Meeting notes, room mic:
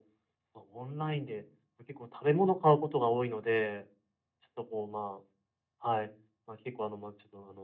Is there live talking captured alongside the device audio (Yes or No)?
No